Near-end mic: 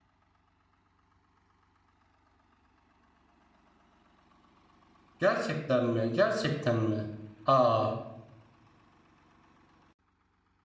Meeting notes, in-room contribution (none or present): present